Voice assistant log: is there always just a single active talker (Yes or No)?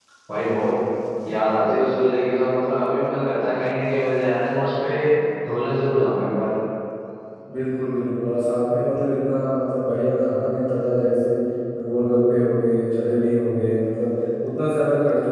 Yes